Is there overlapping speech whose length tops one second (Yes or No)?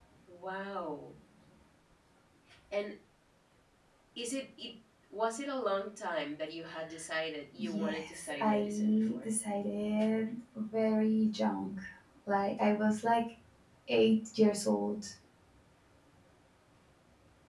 Yes